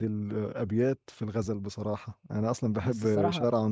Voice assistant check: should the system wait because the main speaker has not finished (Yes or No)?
Yes